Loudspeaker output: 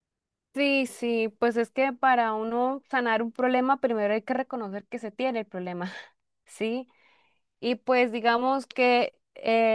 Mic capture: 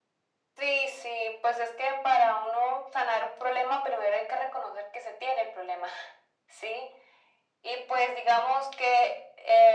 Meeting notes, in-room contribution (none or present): none